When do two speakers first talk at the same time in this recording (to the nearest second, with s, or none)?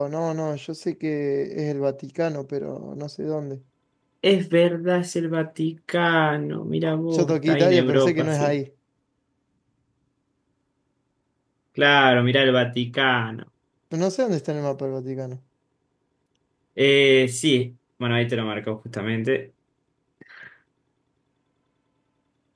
7 s